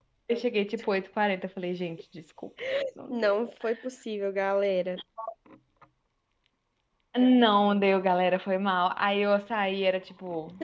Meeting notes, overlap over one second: none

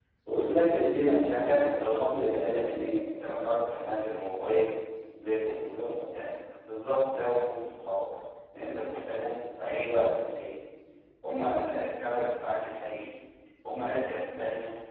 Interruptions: present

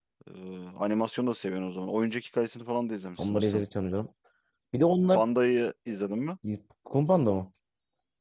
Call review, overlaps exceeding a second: none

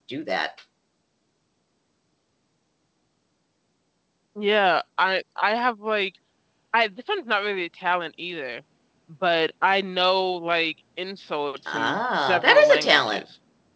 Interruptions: present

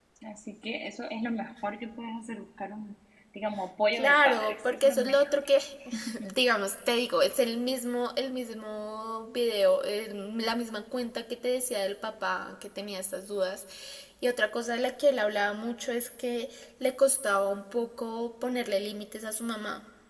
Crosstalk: present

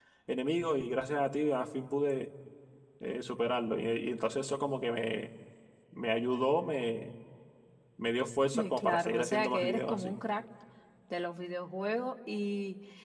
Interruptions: present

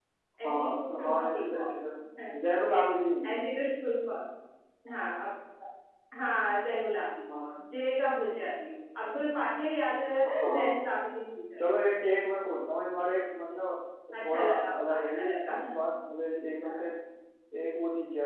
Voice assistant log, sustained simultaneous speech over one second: present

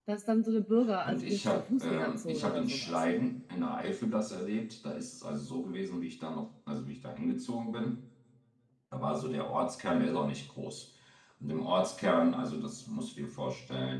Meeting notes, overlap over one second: present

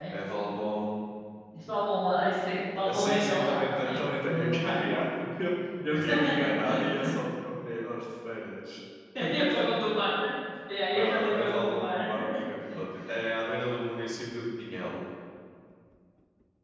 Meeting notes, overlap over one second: present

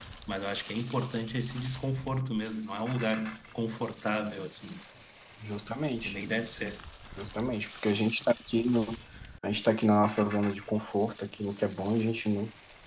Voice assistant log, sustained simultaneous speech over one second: none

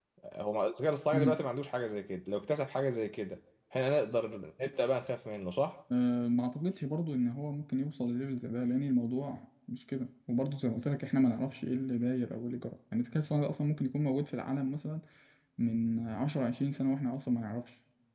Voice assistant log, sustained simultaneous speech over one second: none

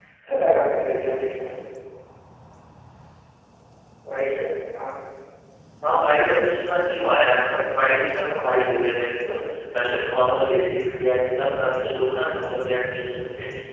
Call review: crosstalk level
none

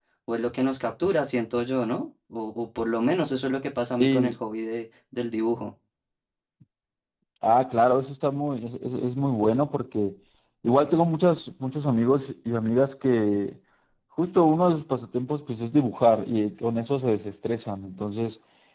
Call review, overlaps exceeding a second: none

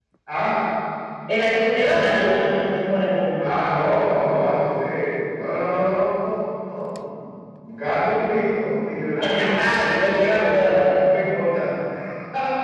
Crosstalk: present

